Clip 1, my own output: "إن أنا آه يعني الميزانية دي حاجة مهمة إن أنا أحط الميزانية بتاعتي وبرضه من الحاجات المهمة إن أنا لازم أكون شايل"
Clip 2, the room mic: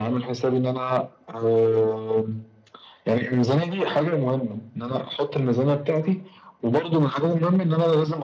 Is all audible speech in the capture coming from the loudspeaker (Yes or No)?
Yes